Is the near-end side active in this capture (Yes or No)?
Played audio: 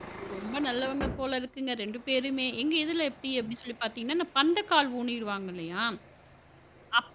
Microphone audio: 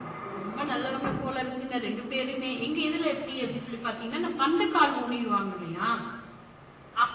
No